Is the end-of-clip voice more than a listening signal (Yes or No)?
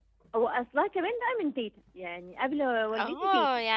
Yes